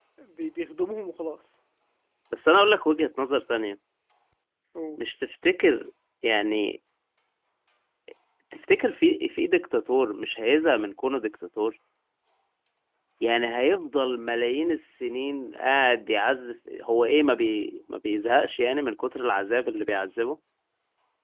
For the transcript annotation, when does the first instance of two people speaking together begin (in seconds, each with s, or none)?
none